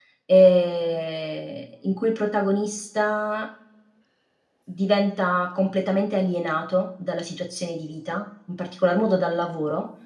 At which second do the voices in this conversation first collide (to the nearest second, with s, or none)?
none